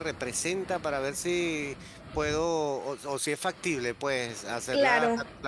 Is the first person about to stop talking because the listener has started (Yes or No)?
No